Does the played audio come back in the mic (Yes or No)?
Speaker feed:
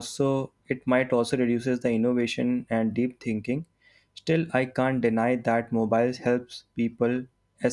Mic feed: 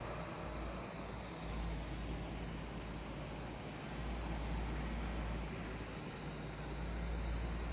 No